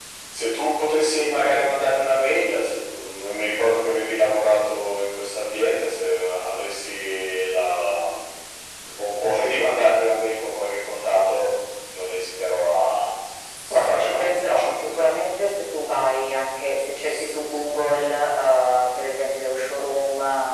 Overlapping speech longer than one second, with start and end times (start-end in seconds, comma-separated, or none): 13.7-15.0